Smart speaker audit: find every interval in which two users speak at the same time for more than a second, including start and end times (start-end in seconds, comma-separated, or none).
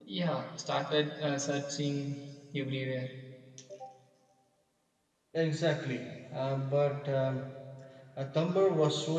none